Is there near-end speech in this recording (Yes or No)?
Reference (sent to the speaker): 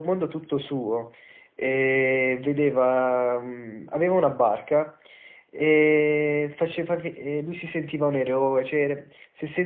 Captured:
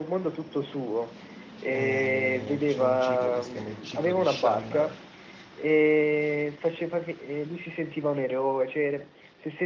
Yes